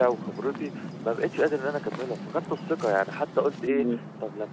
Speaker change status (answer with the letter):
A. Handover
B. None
B